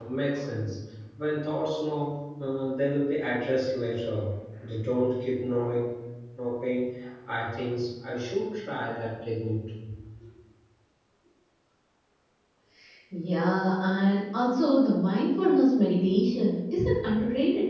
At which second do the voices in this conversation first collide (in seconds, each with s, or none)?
none